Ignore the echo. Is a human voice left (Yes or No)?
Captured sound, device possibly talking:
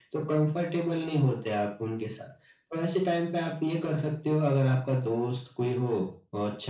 No